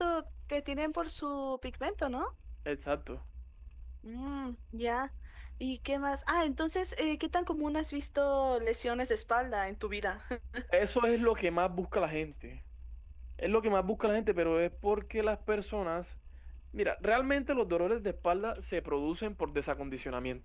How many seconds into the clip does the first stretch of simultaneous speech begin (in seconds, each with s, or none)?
none